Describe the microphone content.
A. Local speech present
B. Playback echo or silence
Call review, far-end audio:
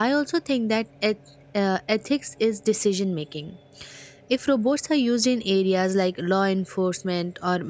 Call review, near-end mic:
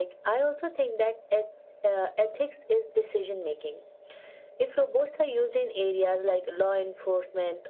B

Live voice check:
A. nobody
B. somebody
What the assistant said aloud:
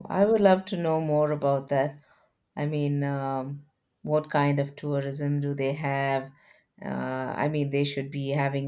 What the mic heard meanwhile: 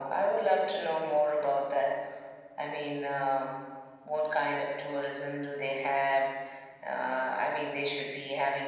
A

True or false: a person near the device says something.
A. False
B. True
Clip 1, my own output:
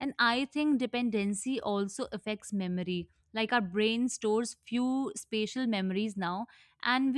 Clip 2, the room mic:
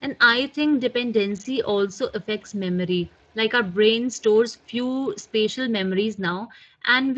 A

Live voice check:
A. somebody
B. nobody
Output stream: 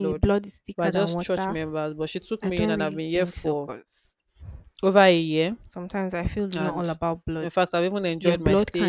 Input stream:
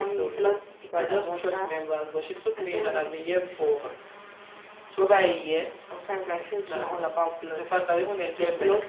B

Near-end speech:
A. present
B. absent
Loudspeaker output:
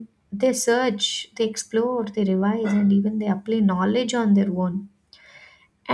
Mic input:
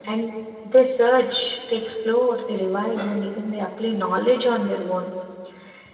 B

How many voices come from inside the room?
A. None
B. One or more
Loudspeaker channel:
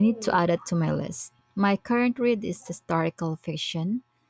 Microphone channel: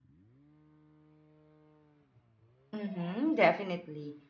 B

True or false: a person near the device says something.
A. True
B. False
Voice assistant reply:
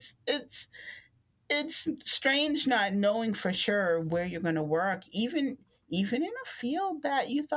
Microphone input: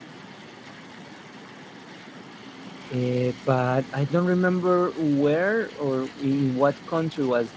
A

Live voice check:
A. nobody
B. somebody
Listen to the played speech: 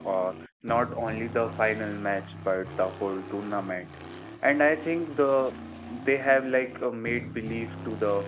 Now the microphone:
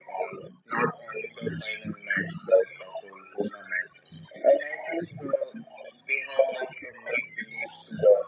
A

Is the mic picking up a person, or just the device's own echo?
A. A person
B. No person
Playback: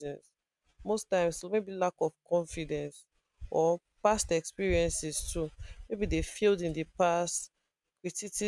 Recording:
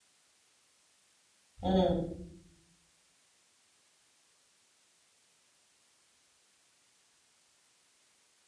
A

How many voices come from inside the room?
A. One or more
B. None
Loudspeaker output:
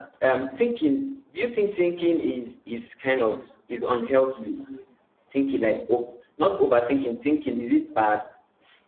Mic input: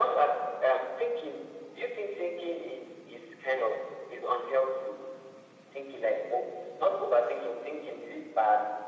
B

